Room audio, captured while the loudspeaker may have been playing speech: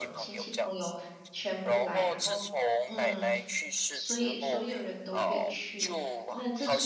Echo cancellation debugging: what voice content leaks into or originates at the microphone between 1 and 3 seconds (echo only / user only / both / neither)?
both